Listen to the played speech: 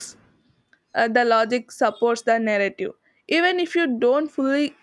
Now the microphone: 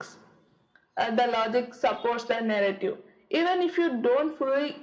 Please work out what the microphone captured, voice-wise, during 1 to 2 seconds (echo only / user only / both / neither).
echo only